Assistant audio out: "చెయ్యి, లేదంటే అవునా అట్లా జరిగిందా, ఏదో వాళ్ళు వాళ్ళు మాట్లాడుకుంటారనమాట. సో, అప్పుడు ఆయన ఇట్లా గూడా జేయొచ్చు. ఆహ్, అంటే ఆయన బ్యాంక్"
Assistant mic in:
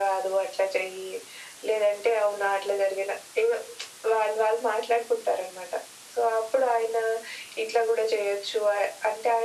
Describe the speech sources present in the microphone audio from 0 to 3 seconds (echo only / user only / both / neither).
echo only